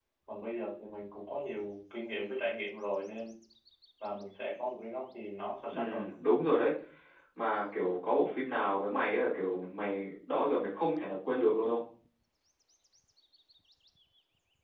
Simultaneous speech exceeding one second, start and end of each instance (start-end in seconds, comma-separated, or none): none